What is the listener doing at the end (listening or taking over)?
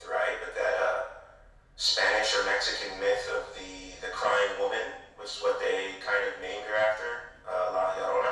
taking over